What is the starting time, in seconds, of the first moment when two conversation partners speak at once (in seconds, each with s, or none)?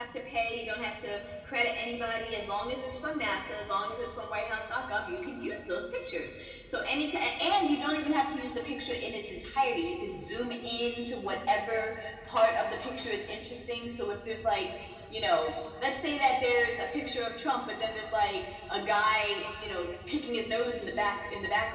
none